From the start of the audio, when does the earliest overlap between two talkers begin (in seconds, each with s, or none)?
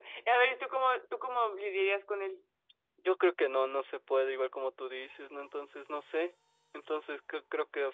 none